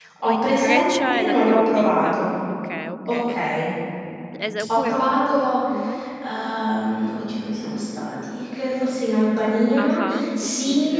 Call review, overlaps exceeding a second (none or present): present